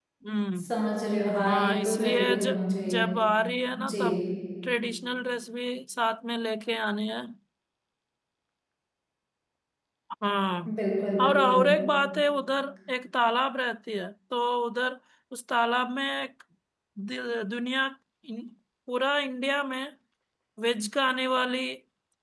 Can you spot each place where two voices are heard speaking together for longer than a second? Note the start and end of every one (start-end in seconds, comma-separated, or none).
1.5-3.0